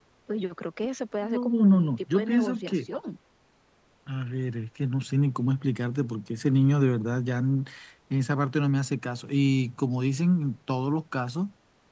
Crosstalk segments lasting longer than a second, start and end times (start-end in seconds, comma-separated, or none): 1.2-2.9